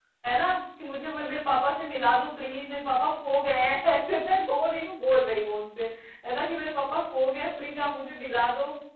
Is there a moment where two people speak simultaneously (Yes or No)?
No